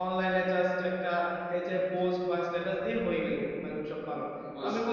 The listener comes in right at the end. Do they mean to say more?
No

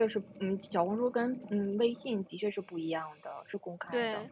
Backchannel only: No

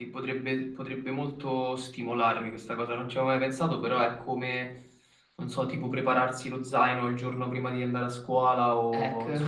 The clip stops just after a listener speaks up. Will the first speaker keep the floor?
Yes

